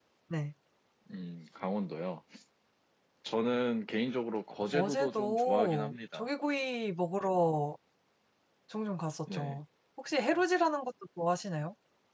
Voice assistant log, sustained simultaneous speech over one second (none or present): present